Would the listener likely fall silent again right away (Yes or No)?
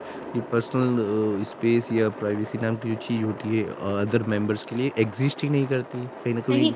Yes